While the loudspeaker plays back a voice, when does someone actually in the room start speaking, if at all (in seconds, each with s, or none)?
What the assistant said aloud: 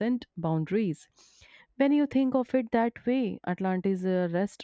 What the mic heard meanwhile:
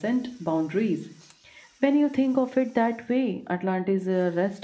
none